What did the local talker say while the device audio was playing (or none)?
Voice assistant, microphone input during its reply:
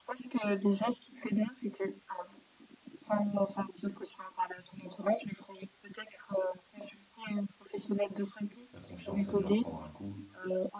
la confiance a dû en prendre un coup,